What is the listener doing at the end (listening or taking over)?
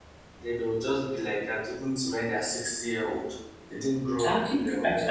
taking over